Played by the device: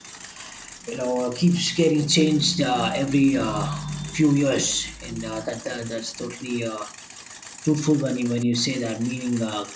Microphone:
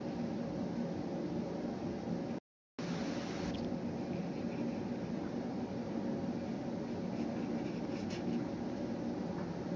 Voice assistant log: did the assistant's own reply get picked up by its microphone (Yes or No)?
No